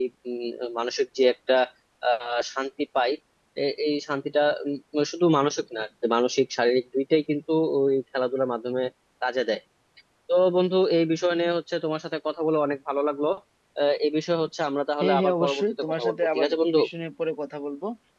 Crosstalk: present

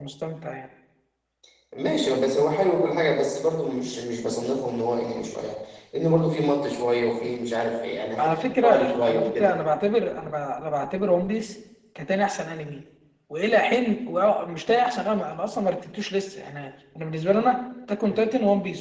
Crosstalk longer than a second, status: present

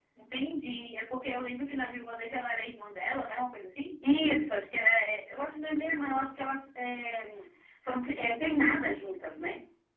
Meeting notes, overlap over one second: none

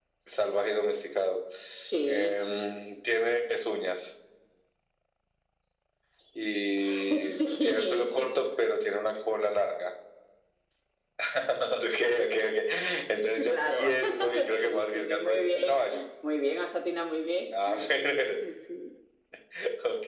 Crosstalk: present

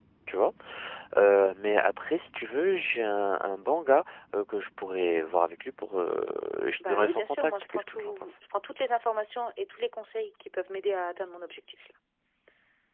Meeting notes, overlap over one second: present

